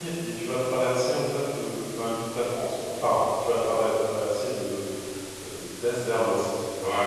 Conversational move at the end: taking over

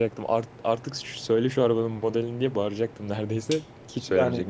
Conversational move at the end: taking over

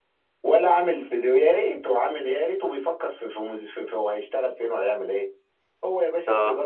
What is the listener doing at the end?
listening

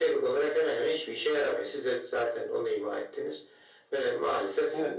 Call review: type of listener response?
taking over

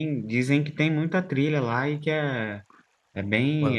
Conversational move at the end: taking over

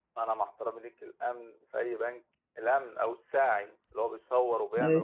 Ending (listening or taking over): listening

